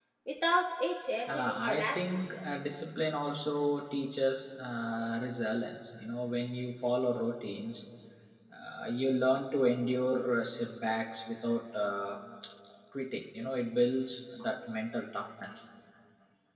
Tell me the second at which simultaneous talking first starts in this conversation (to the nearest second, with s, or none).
1 s